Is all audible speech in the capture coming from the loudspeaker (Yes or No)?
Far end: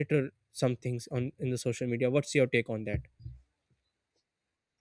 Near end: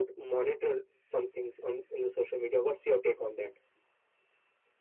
Yes